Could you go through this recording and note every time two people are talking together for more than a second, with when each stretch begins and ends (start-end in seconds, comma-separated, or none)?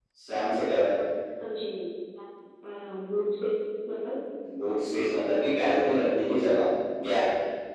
none